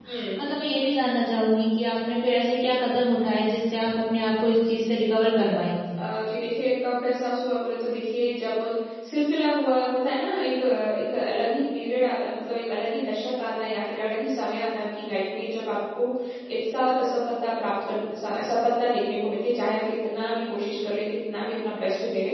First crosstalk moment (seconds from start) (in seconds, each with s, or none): none